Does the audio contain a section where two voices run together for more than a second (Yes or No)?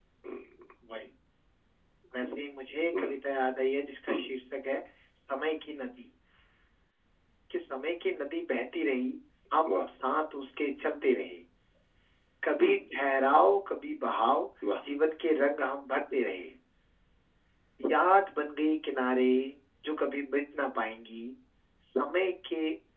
No